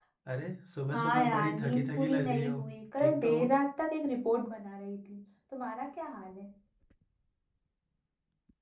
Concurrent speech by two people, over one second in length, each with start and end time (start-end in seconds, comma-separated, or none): 0.9-2.6